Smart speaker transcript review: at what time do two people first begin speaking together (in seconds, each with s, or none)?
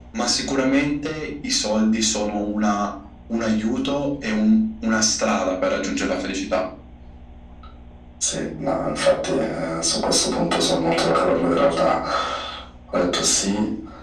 none